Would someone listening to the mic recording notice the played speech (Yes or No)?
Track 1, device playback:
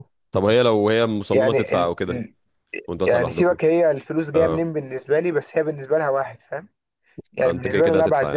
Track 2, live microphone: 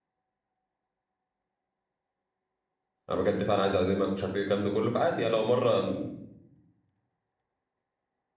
No